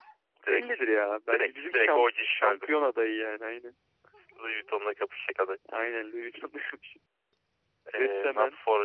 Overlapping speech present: Yes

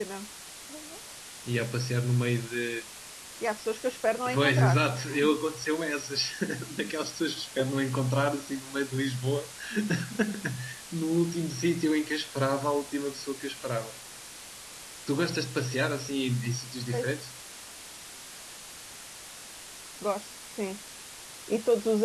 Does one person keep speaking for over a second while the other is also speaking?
No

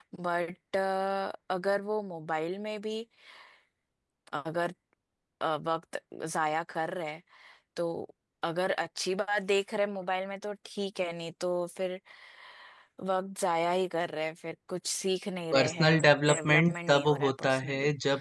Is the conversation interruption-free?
No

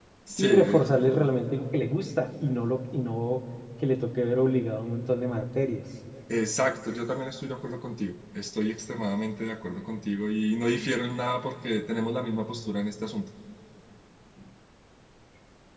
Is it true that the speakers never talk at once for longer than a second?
Yes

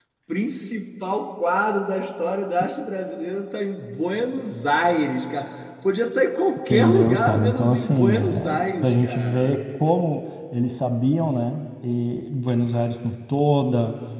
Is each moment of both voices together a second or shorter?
No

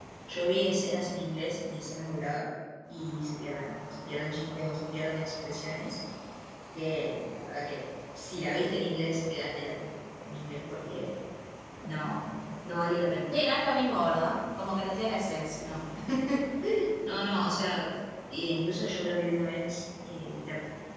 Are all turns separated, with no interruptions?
Yes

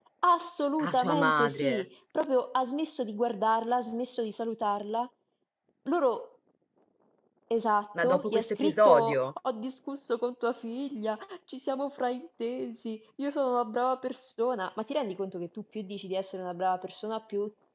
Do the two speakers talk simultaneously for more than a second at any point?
Yes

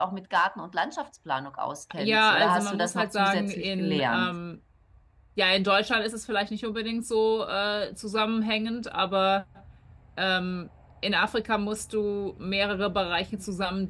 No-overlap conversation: No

